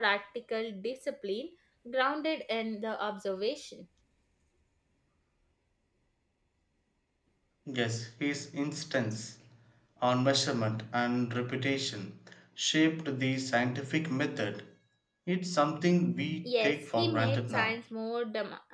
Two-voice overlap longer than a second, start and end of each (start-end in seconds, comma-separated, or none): 16.4-17.8